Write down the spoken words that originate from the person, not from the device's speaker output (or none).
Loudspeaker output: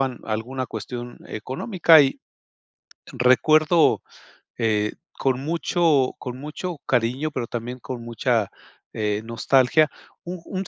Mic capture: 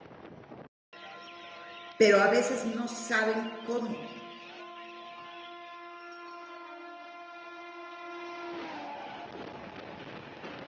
pero a veces no saben cómo